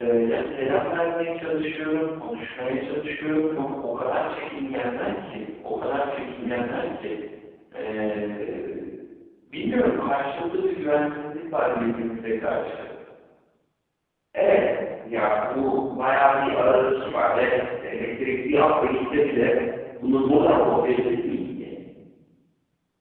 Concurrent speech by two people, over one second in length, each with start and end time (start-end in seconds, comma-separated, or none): none